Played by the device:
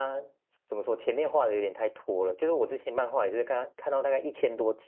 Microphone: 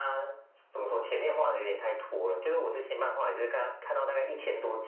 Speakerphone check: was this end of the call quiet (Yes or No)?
Yes